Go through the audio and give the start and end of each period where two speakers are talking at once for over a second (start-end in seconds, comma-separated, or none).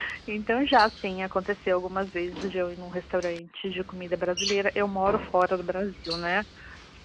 none